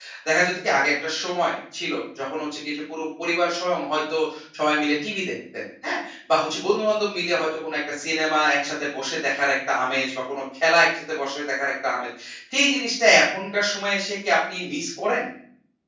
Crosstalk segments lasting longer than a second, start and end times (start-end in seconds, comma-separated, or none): none